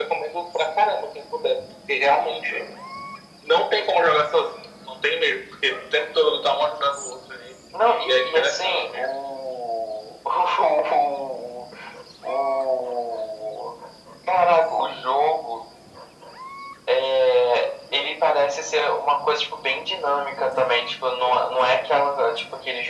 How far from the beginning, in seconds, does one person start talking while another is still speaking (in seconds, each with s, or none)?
7.7 s